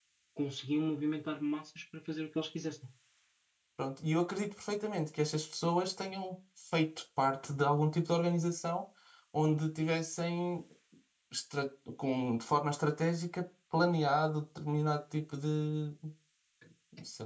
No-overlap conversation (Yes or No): Yes